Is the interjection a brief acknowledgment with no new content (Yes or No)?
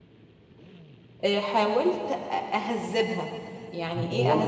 Yes